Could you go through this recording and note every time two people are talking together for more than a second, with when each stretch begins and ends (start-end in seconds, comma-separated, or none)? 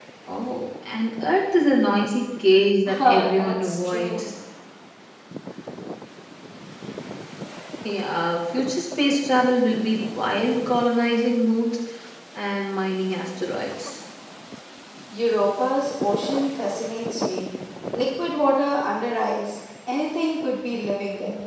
2.9-4.3